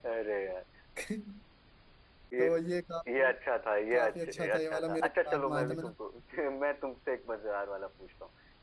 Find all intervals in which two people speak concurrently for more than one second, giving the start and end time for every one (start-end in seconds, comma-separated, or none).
3.9-5.9